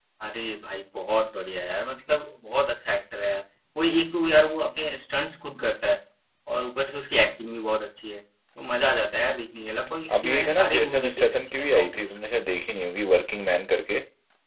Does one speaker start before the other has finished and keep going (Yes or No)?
Yes